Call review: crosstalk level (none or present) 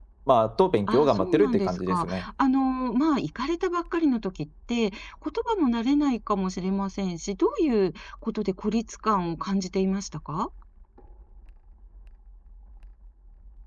present